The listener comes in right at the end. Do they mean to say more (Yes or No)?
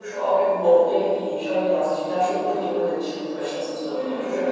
No